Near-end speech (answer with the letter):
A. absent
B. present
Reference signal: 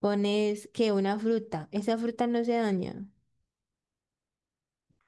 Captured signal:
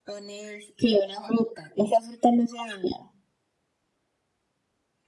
A